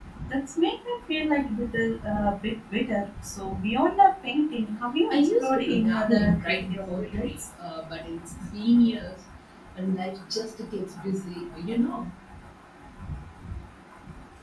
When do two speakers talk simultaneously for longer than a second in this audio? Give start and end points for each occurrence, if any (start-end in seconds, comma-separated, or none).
5.1-7.3